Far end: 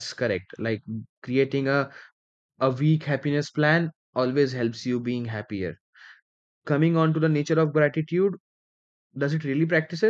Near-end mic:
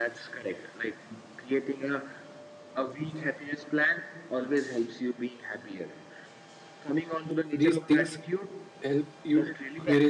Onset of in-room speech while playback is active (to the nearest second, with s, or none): 8 s